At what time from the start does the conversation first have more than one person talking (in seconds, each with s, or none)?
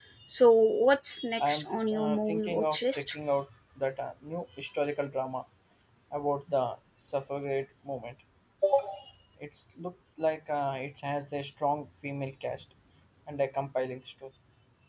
1.4 s